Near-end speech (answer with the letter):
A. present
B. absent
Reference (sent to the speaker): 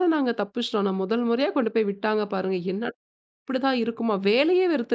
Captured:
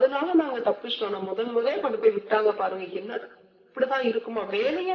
B